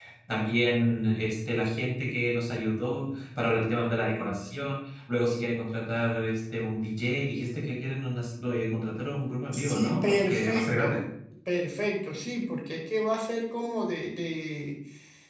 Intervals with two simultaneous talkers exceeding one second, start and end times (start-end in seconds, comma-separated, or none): 9.5-11.0